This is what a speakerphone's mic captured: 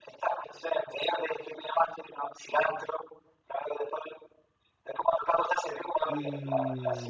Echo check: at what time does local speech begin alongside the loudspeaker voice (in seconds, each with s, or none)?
6.0 s